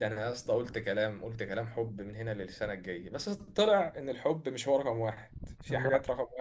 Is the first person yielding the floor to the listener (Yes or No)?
No